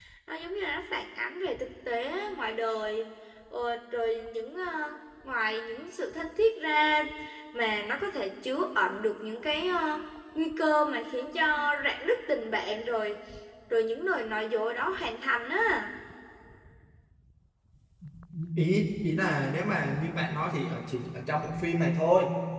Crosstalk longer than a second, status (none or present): none